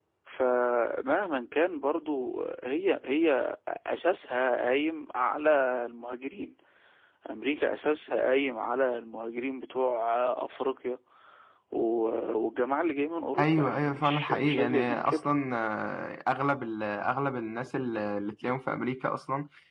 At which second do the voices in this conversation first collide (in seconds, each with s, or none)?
13.4 s